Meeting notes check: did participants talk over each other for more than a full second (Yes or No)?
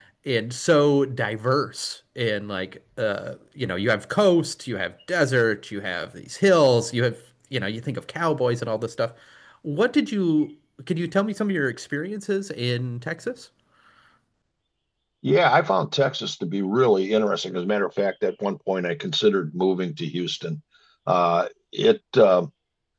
No